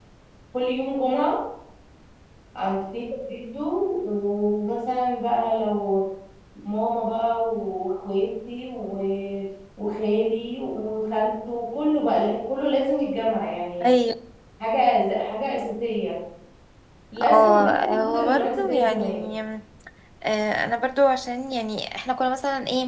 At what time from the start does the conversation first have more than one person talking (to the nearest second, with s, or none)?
17 s